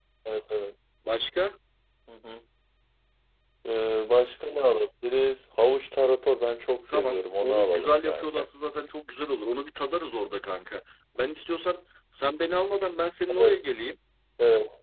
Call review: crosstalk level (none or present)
present